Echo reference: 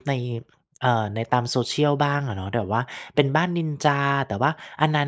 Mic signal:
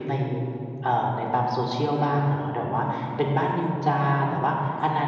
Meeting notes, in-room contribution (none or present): none